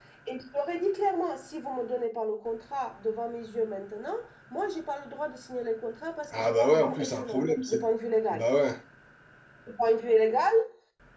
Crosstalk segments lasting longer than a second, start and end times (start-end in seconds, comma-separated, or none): 6.3-7.8